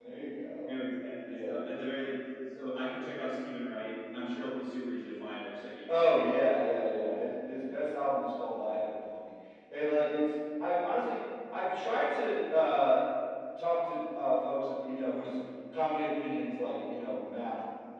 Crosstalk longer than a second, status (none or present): none